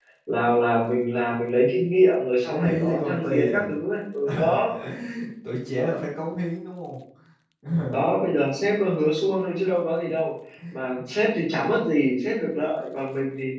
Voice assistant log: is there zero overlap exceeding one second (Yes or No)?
No